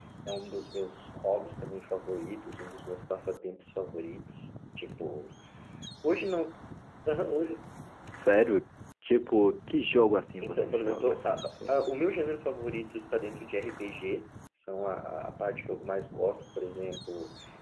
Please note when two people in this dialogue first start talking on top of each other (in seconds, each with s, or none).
10.4 s